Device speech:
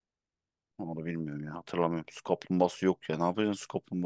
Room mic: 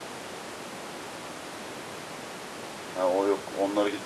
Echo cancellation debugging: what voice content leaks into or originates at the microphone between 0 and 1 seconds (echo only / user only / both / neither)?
neither